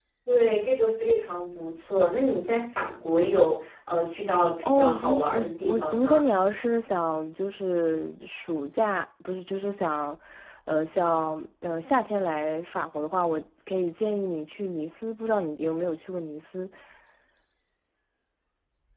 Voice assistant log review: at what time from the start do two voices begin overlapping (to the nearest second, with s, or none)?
5 s